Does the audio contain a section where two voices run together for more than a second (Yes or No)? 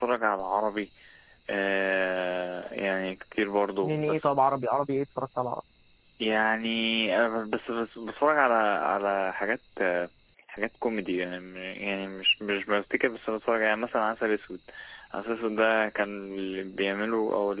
No